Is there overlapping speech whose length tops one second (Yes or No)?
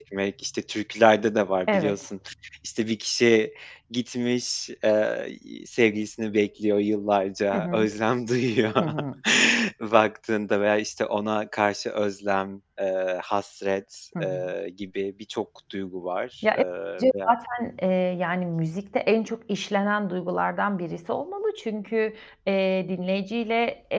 No